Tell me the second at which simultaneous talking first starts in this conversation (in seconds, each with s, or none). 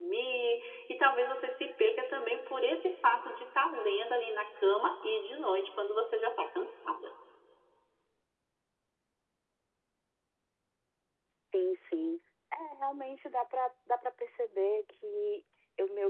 none